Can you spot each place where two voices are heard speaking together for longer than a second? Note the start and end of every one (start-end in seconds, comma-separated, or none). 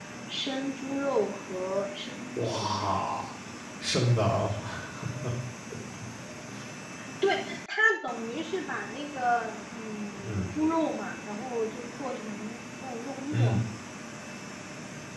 none